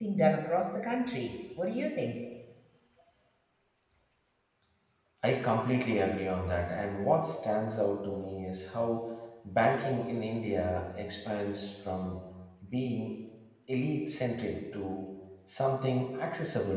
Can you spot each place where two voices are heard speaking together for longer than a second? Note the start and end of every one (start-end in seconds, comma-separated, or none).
none